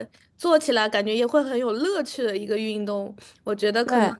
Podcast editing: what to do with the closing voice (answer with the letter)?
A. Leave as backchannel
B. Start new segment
A